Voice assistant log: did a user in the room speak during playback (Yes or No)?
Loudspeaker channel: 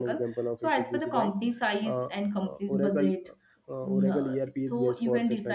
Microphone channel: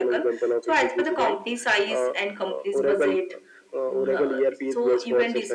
No